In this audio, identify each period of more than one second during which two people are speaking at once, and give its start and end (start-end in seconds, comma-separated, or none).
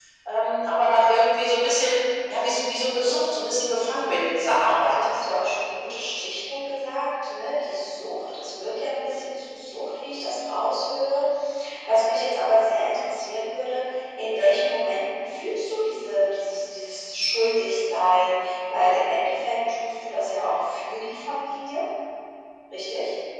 none